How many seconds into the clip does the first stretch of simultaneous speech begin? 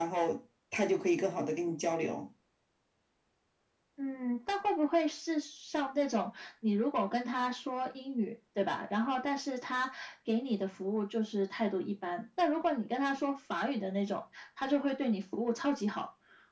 none

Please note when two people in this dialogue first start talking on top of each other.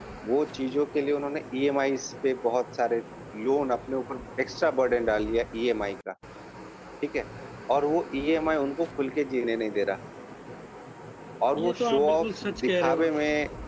11.6 s

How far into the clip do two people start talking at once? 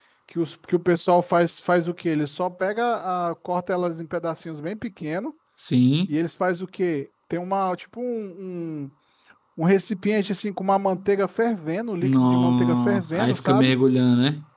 12.0 s

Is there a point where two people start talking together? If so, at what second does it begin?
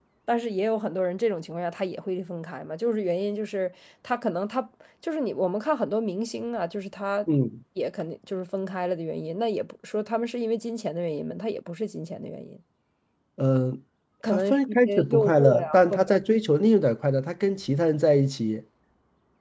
14.3 s

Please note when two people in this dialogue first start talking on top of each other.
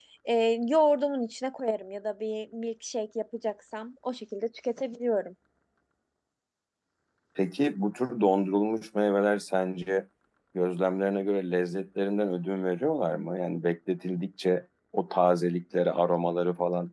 none

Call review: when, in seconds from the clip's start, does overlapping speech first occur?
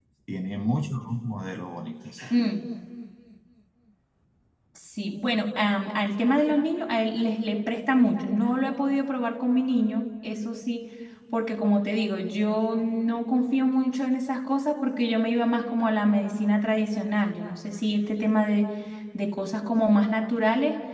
none

